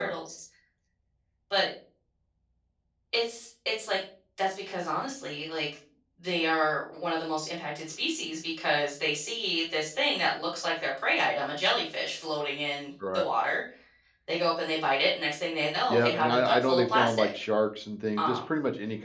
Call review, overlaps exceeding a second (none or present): present